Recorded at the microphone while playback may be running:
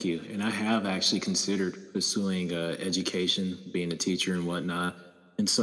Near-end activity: none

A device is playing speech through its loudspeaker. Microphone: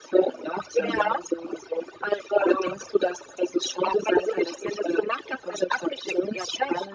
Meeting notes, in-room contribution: present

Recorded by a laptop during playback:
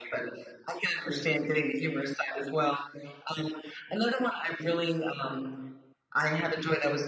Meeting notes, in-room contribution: none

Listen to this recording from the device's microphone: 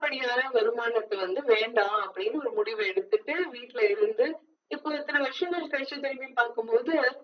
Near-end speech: none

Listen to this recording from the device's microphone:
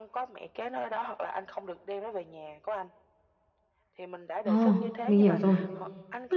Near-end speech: present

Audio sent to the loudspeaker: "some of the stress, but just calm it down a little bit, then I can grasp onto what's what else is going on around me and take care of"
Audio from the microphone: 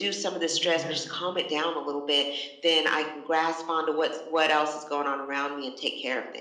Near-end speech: present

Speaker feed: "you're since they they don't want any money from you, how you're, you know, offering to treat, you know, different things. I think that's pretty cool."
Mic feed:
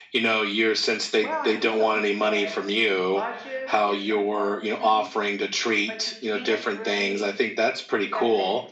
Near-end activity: present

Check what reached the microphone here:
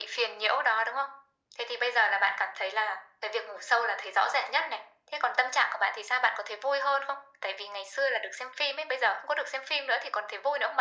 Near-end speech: none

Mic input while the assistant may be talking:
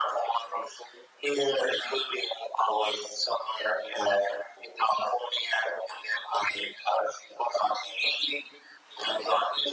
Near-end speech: none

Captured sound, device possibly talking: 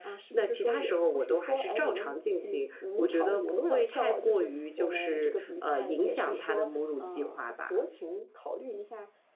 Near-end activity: none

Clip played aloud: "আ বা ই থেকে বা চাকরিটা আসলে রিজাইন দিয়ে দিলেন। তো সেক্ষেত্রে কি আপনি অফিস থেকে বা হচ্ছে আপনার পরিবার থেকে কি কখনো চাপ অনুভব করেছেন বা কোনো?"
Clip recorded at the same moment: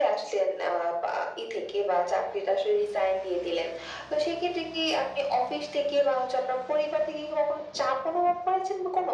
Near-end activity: none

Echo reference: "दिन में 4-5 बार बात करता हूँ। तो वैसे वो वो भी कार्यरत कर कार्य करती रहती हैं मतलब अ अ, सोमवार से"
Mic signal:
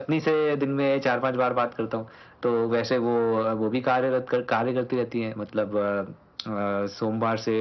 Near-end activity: none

